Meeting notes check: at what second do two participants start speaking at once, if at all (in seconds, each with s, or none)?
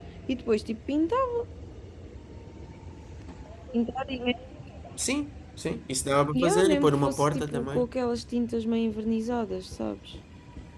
6.3 s